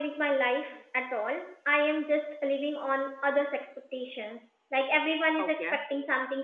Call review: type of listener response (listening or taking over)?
listening